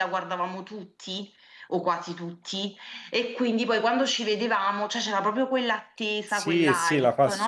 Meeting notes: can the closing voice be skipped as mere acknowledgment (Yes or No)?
No